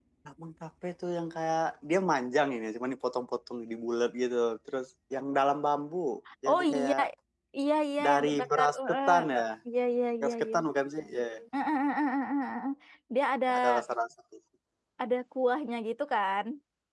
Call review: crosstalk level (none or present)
present